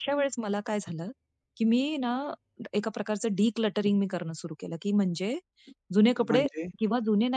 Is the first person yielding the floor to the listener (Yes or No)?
No